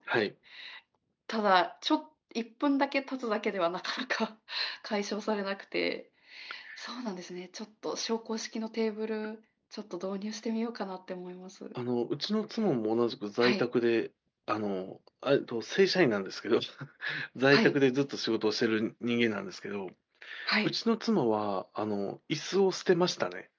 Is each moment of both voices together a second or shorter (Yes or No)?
Yes